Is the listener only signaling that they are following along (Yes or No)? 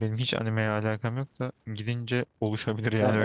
No